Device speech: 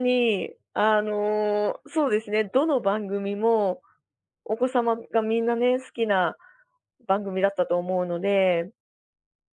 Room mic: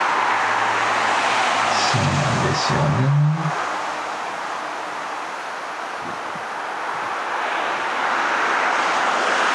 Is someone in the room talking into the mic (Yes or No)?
Yes